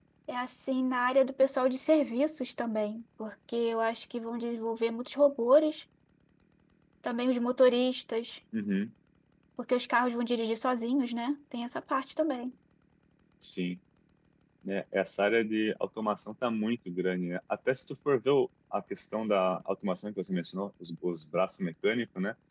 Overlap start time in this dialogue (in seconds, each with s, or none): none